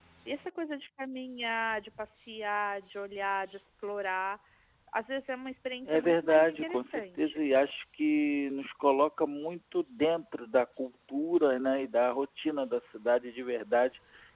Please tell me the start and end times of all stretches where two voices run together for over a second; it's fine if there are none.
5.8-7.4

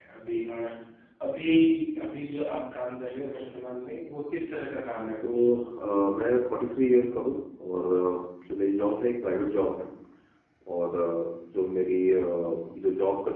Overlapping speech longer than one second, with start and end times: none

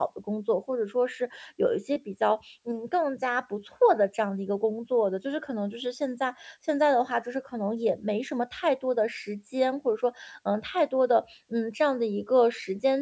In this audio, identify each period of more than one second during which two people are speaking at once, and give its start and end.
none

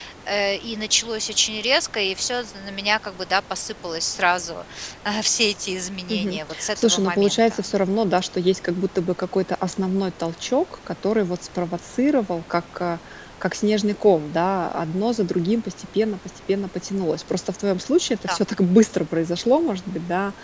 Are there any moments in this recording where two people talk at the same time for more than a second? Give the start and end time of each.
6.1-7.7

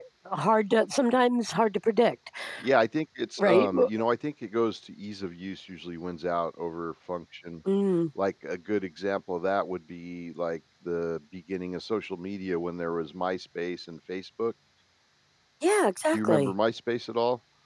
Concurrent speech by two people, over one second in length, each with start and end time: none

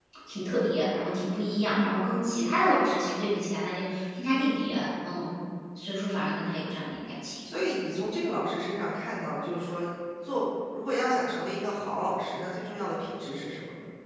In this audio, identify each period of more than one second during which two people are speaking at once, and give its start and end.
none

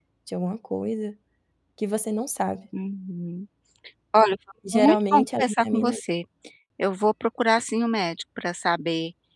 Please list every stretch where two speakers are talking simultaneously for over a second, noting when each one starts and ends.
4.7-6.0

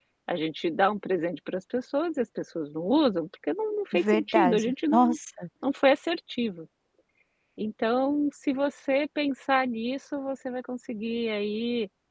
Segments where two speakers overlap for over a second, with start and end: 3.9-5.2

